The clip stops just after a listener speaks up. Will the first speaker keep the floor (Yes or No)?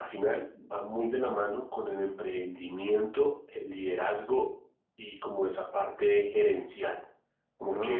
Yes